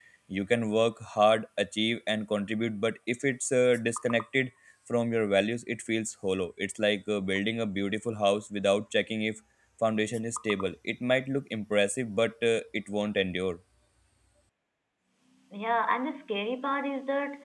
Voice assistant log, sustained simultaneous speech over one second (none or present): none